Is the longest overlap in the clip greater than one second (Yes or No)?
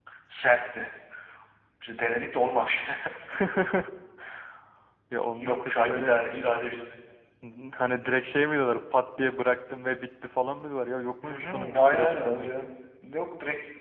Yes